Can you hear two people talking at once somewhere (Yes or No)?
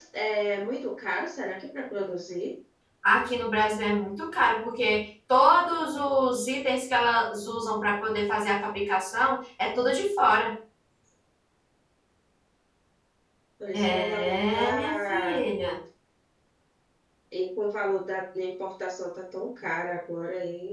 Yes